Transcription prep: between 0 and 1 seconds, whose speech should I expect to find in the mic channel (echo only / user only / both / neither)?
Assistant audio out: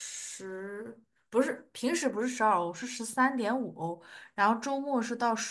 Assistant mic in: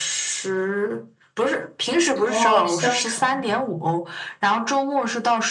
echo only